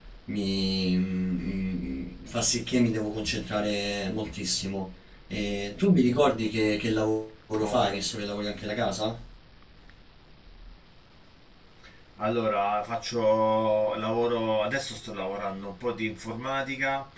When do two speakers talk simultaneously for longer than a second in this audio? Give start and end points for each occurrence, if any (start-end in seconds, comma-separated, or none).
none